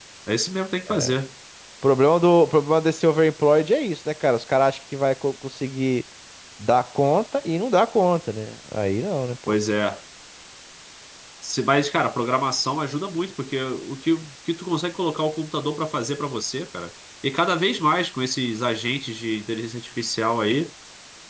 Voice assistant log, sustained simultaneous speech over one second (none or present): none